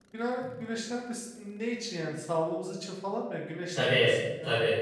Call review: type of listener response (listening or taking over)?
taking over